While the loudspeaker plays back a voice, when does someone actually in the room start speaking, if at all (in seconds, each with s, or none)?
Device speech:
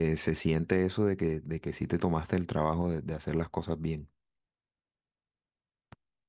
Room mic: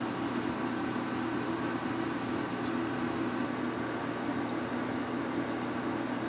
none